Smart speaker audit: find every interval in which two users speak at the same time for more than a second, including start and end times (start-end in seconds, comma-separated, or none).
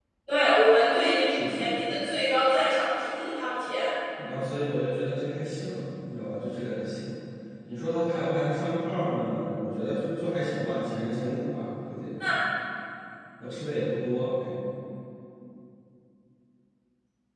none